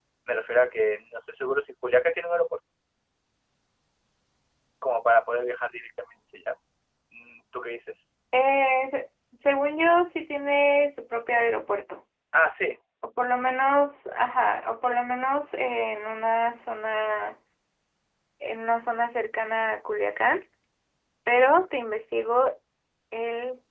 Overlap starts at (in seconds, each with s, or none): none